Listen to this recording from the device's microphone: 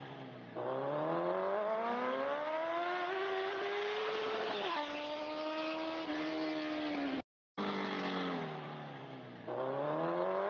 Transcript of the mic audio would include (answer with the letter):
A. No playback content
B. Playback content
A